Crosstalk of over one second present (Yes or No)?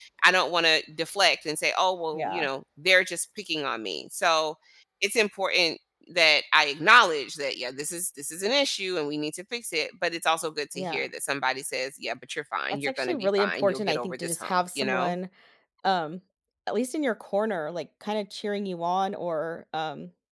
Yes